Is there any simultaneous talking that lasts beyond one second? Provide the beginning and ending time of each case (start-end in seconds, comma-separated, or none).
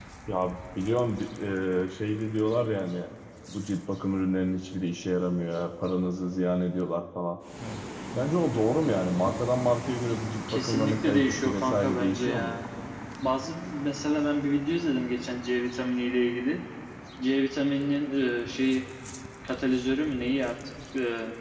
10.5-12.6